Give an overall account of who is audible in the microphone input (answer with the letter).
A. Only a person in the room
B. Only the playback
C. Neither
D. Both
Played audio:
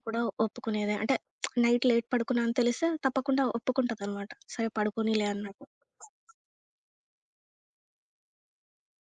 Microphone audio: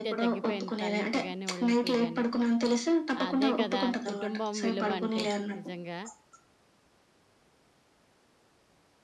D